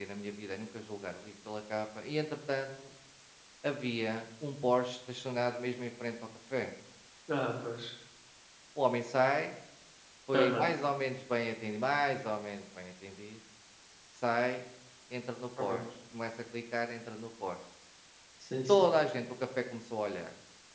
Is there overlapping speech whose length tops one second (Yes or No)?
No